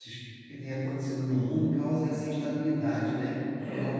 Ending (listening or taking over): listening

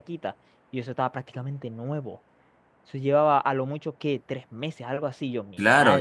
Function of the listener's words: taking over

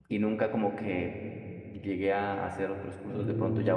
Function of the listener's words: listening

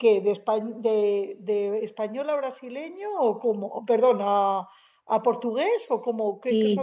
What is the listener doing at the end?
taking over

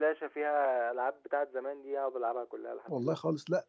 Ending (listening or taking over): taking over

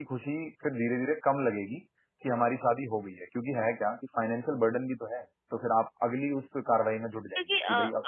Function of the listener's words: taking over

